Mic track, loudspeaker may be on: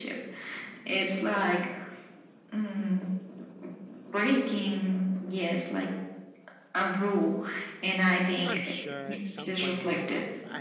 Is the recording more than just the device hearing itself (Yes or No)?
Yes